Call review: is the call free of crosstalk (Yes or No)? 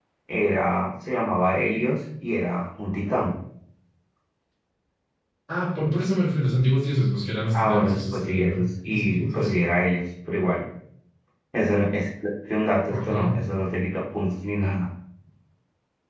No